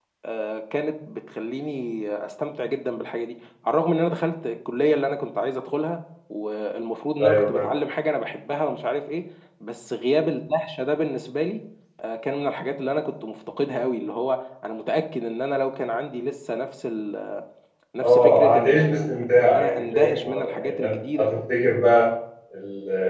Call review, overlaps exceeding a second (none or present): present